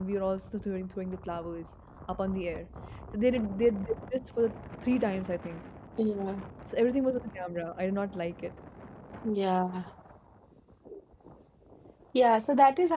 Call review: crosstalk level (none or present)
none